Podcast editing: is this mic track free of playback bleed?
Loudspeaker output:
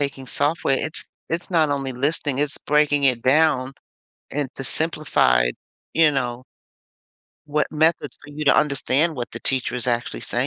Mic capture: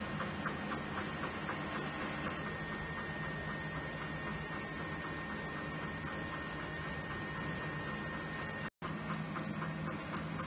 Yes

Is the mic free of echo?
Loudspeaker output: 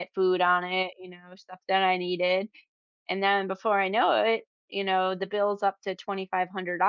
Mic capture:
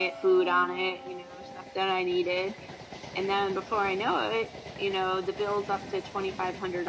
No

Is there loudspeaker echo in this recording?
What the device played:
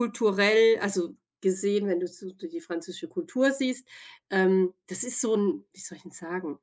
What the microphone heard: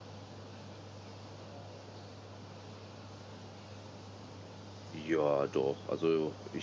No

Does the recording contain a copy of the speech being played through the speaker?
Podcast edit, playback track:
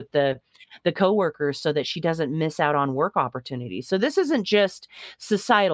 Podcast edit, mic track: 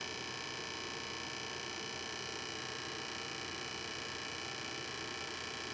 No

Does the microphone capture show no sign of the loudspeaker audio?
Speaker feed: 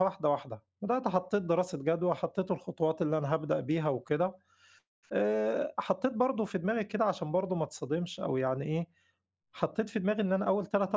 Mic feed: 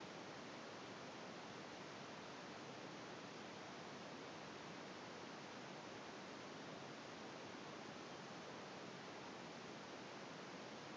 Yes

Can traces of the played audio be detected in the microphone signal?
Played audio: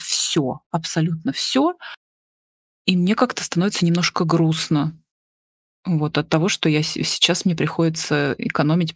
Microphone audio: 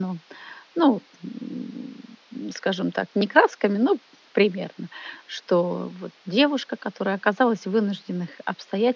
No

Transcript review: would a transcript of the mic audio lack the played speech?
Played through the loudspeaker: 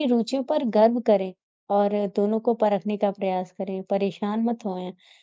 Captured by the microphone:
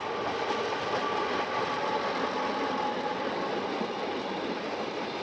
Yes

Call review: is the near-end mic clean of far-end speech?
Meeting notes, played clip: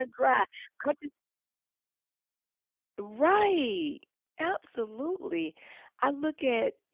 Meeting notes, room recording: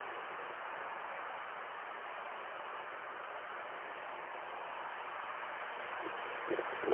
Yes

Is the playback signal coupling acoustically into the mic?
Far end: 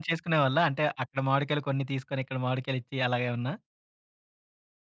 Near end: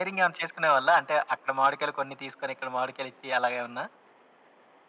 Yes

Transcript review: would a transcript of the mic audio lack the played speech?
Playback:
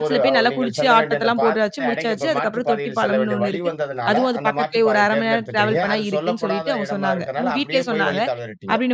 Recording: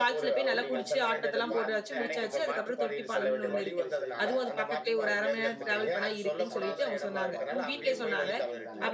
No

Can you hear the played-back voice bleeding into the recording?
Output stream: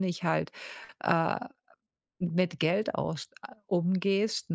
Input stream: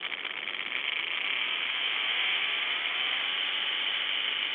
No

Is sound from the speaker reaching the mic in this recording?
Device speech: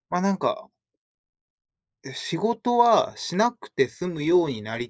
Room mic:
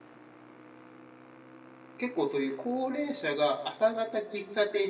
No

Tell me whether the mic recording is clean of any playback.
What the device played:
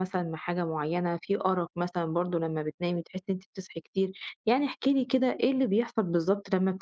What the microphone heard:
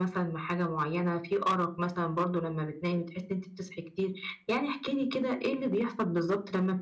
No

